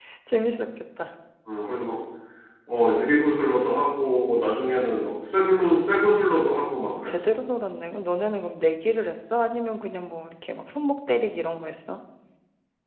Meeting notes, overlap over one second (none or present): none